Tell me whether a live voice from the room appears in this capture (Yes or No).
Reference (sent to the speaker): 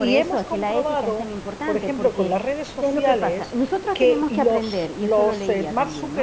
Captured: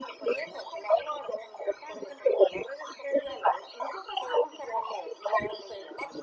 No